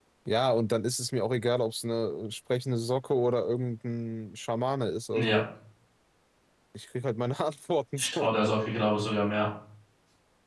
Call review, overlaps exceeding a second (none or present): none